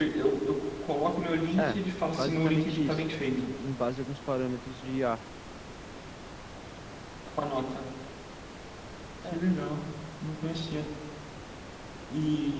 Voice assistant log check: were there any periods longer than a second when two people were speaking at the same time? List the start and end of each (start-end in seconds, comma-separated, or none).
1.6-3.0